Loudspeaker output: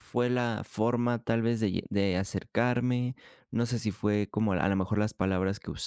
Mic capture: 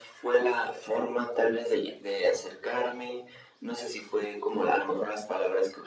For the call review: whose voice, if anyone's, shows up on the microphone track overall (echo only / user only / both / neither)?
echo only